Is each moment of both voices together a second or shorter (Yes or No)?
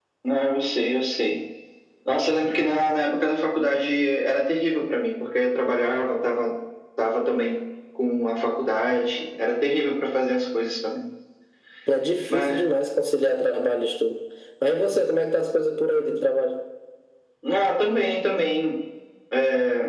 Yes